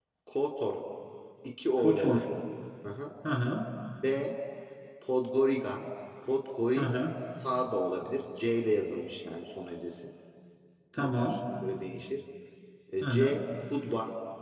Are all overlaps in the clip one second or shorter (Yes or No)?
Yes